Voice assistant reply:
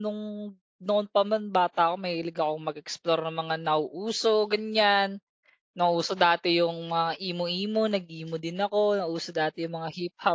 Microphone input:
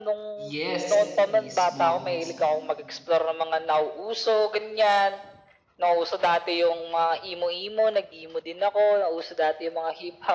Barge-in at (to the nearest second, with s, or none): 1 s